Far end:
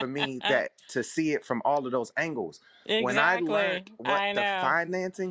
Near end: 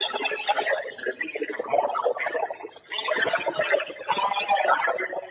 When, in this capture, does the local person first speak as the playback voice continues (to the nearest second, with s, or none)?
none